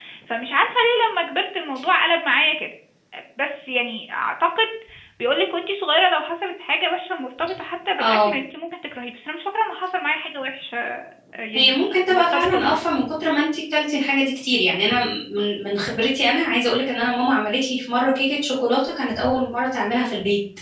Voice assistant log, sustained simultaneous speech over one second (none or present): present